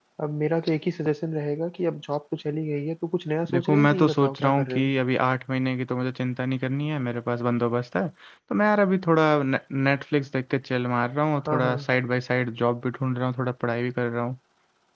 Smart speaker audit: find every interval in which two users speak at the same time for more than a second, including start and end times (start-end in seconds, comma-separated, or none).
3.5-4.9